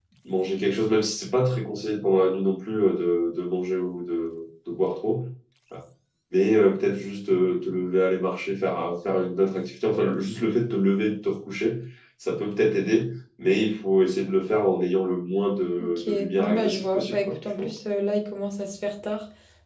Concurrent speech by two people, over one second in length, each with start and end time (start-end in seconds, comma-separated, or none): 15.8-17.7